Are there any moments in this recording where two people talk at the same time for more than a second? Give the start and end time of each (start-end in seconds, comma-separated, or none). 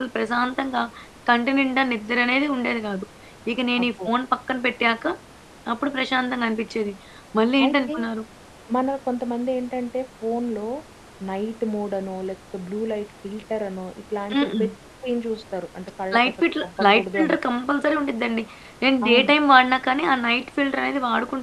16.1-17.4